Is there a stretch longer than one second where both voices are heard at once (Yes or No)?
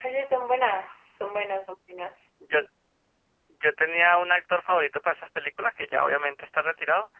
No